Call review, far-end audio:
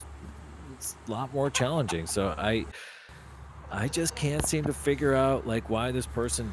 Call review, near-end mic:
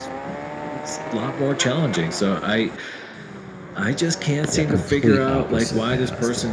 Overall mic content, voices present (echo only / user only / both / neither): both